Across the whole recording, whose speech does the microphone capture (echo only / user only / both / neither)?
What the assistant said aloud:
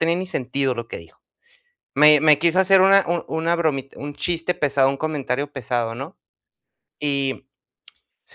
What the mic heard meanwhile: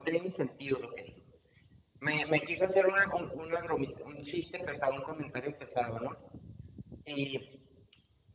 echo only